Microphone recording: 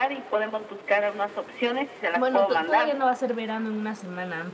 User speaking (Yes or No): Yes